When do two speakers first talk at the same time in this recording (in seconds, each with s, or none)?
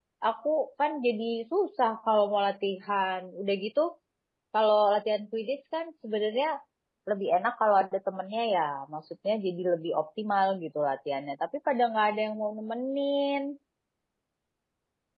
none